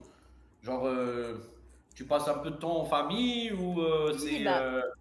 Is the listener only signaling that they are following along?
No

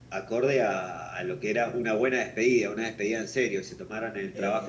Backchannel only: Yes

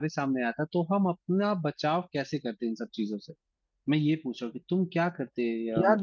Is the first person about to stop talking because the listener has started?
Yes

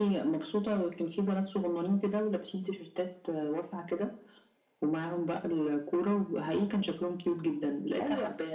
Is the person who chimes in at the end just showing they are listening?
Yes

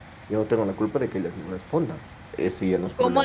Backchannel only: No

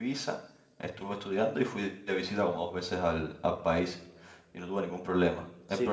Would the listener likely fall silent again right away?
No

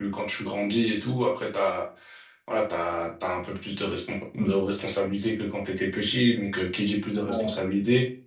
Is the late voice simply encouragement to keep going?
Yes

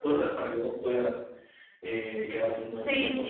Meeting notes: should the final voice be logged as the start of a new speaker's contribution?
Yes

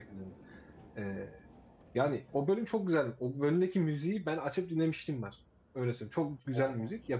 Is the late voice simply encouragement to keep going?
Yes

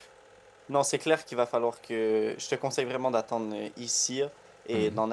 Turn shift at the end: No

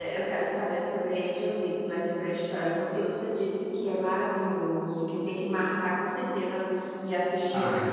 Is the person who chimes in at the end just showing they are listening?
No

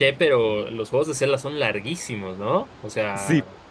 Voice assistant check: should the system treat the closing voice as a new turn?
Yes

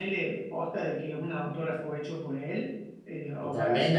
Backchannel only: No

